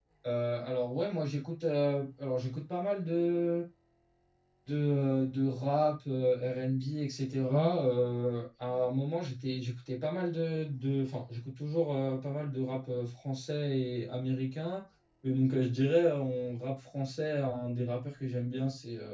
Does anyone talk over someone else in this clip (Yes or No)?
No